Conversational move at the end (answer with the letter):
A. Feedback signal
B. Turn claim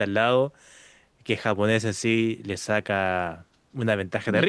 A